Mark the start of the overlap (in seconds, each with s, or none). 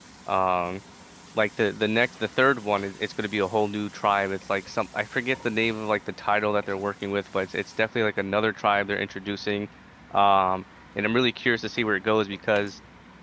none